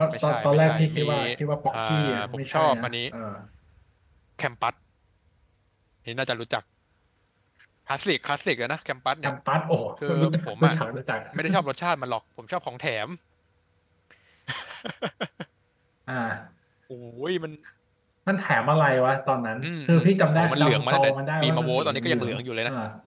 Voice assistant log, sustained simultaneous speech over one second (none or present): present